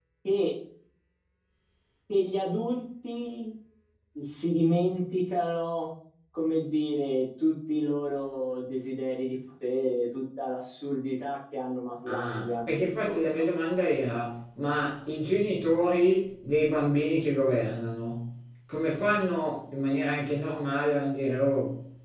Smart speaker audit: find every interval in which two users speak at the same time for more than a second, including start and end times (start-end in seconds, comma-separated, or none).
12.1-13.4